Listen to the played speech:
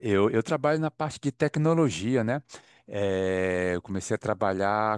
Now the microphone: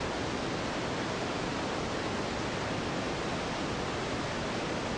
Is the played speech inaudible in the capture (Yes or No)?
Yes